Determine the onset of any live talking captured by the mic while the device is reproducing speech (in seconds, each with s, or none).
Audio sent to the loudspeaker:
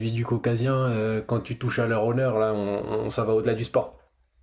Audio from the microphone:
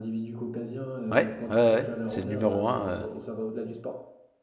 1.1 s